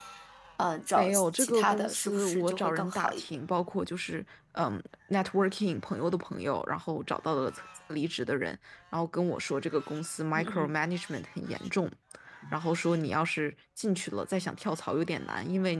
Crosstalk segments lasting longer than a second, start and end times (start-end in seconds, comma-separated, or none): 1.0-3.2